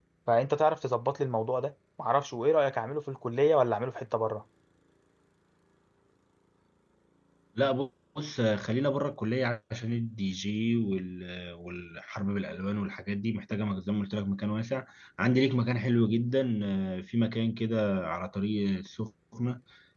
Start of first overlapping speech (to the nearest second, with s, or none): none